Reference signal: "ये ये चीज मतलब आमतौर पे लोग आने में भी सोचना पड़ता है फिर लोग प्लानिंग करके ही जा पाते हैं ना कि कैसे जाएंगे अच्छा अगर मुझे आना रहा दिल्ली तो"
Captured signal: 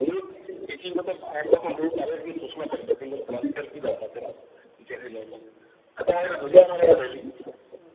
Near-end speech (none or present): none